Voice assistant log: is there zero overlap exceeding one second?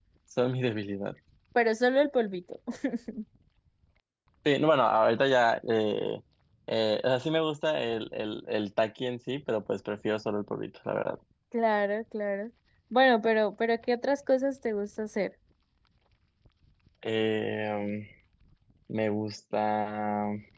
Yes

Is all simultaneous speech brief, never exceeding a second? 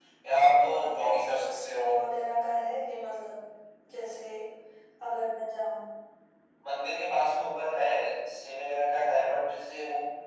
No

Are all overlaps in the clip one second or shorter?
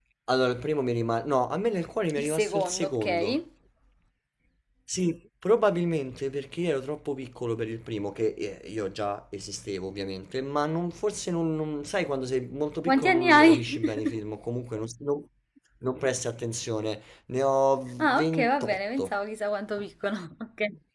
No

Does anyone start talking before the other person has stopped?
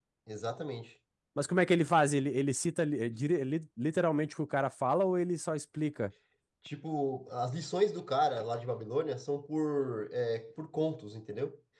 No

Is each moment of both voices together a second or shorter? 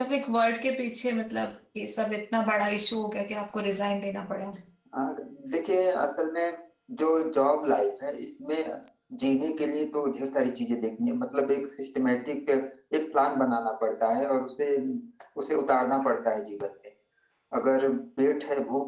Yes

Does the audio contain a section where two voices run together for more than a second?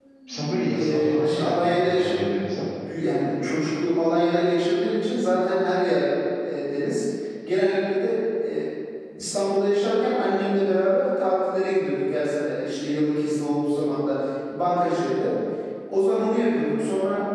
Yes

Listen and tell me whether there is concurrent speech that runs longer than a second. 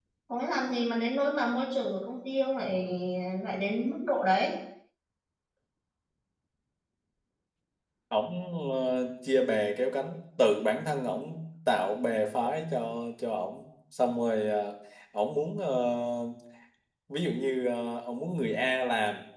No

